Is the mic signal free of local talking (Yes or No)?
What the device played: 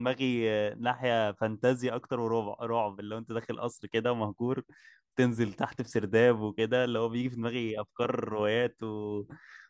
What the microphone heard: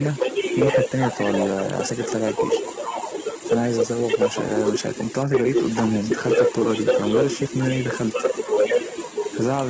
No